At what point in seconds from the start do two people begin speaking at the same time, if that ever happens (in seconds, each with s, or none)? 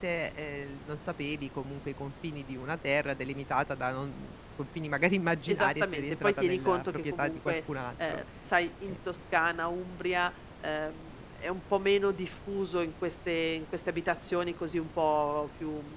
5.5 s